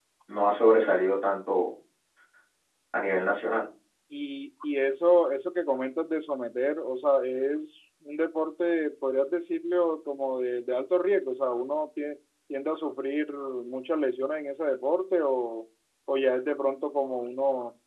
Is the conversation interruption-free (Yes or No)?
Yes